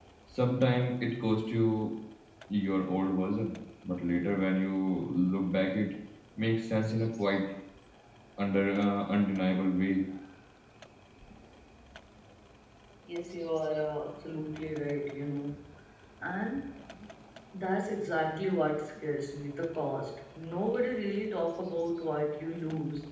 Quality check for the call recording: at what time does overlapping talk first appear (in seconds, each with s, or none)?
none